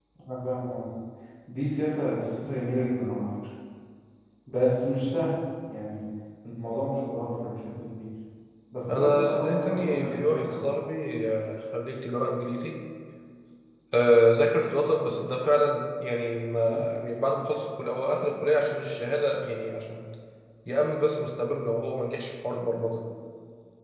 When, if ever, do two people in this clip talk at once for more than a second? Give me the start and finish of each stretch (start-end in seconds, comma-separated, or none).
8.9-10.6